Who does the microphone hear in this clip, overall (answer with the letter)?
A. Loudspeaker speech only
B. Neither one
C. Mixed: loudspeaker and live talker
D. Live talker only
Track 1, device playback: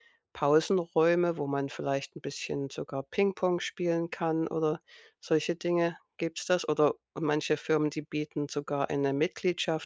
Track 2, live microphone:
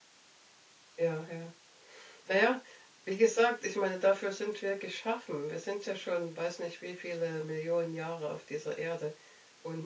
D